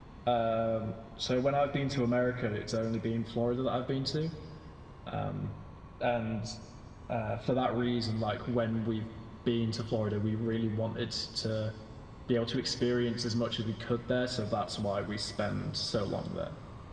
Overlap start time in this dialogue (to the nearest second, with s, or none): none